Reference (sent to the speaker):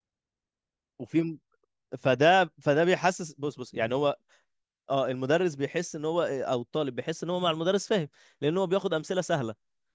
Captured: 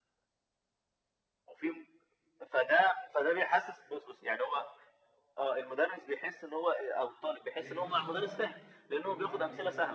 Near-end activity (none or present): present